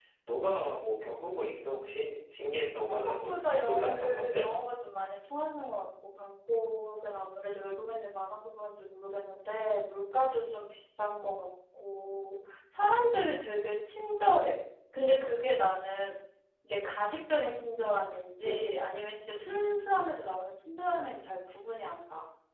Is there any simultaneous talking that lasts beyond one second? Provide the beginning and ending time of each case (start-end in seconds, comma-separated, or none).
2.9-4.5